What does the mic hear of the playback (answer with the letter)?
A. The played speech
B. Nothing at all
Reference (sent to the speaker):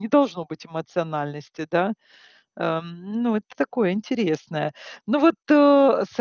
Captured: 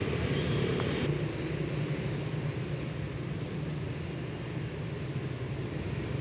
B